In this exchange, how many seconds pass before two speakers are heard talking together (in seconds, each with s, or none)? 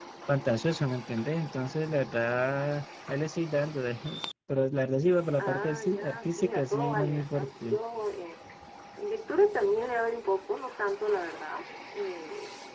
5.4 s